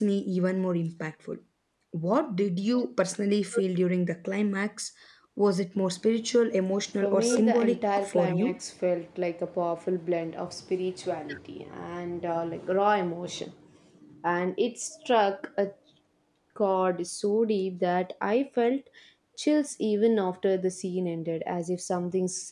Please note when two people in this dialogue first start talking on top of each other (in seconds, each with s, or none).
7.0 s